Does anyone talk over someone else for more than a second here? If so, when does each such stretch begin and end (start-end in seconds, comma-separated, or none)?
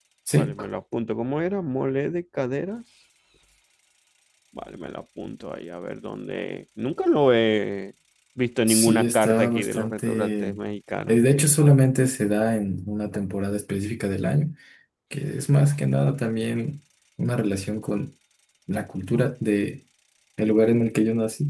8.7-10.4